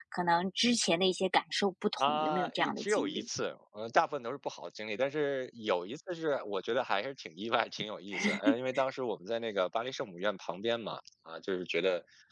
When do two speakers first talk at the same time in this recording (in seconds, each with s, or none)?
2.0 s